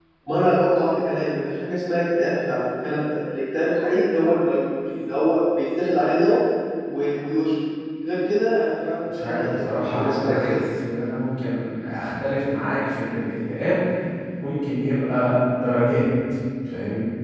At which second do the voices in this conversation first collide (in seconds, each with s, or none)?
9.2 s